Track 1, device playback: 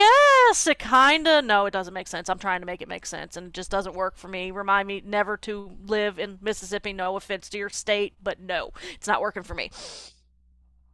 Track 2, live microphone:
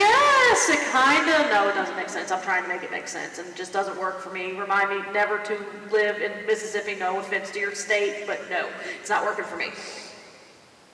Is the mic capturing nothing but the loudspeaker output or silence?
Yes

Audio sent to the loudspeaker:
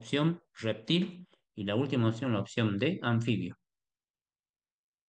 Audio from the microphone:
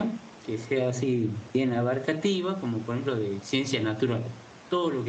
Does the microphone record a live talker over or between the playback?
Yes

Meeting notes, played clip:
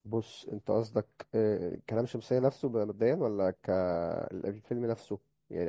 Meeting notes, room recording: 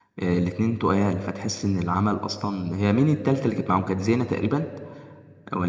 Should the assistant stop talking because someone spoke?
Yes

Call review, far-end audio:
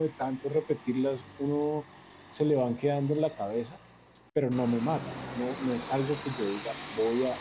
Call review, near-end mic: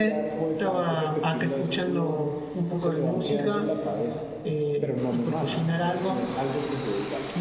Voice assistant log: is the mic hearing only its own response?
No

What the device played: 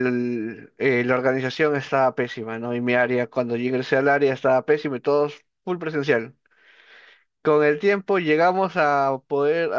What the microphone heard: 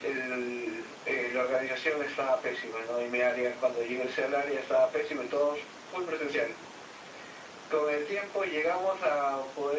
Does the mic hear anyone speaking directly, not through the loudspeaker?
No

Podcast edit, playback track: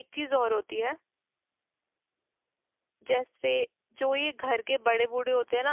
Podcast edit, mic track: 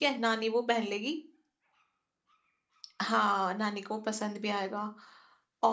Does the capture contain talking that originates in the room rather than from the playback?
Yes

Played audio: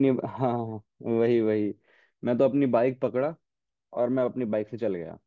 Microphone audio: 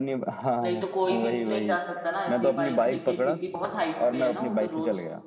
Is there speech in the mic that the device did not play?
Yes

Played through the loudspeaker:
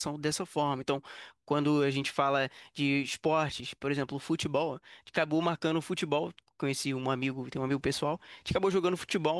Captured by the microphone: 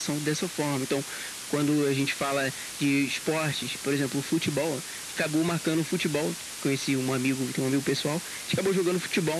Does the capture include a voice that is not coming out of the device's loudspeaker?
No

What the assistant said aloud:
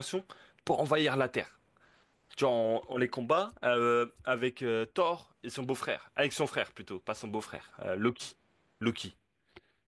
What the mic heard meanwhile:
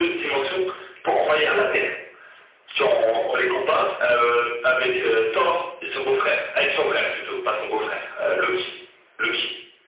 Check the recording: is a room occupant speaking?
No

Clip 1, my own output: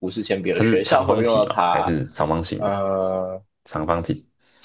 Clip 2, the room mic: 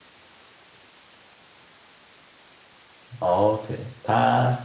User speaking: Yes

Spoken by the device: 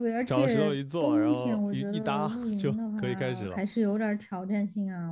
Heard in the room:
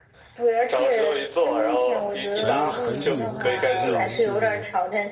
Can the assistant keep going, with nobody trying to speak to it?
No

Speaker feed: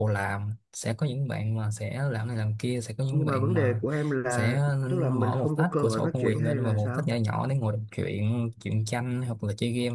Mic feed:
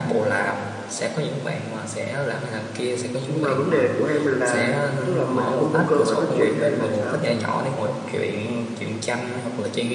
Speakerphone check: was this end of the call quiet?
Yes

